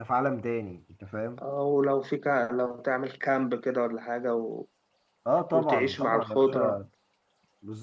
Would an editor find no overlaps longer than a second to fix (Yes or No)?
No